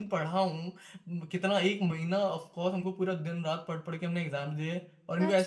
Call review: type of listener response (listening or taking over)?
taking over